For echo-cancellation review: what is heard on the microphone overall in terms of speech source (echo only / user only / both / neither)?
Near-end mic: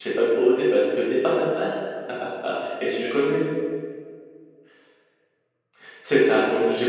user only